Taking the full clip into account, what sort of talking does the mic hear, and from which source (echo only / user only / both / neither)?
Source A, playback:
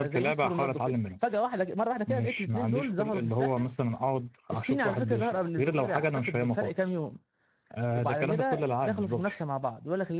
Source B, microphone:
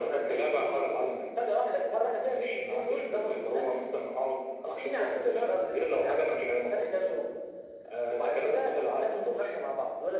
echo only